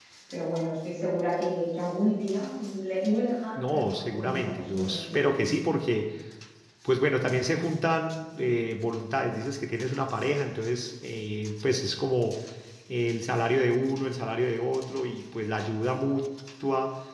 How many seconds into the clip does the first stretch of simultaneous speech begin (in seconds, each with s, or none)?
3.5 s